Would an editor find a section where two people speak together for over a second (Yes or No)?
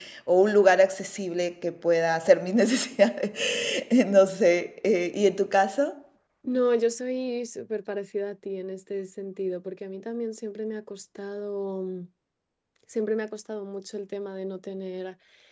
No